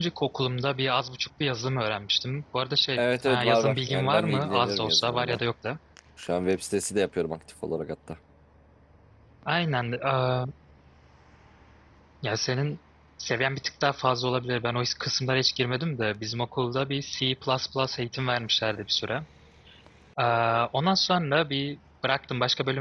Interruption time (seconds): 3.0 s

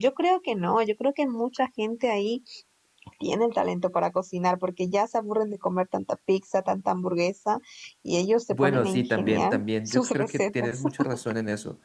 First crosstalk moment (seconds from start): 8.5 s

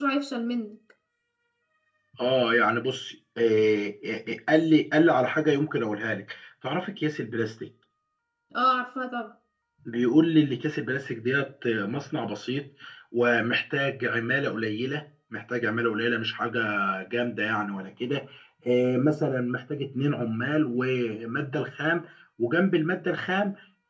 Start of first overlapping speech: none

